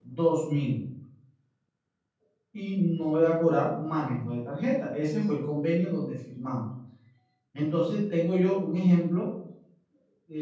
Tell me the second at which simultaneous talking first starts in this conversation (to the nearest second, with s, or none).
none